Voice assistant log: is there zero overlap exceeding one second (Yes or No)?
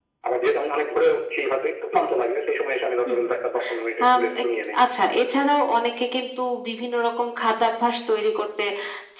Yes